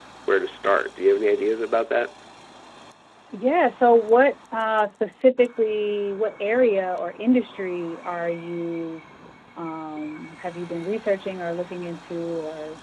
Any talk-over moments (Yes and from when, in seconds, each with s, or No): No